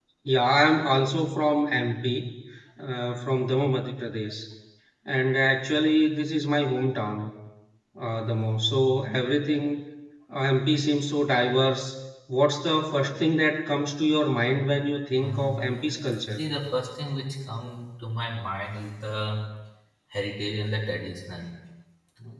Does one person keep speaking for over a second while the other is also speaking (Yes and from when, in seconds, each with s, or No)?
Yes, from 15.2 s